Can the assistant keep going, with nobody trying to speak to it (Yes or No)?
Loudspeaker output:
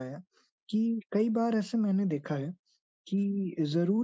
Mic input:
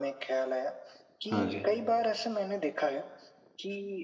No